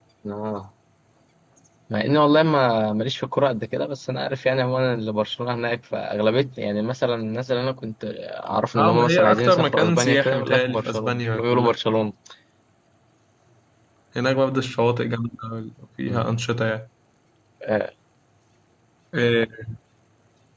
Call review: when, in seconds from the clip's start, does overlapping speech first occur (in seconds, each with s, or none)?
8.7 s